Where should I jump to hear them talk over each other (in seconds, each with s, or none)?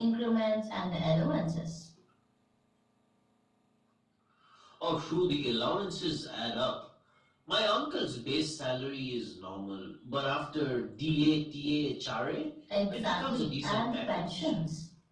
12.9 s